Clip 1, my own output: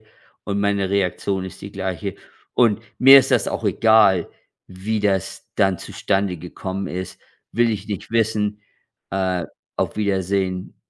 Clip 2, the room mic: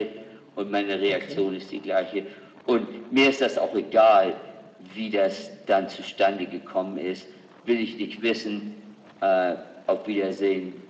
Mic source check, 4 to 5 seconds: echo only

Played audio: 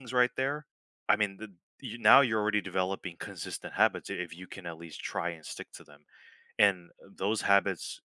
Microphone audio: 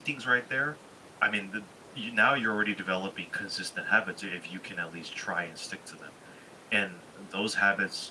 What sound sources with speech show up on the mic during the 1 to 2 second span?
echo only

